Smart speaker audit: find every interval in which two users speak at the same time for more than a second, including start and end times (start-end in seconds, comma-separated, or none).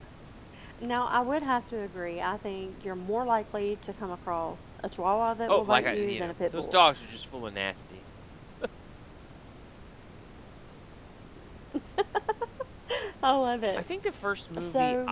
5.5-6.8